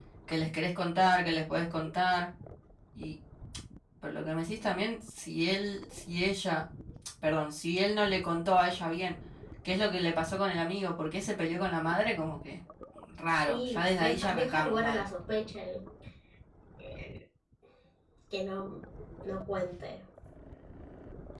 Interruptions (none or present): present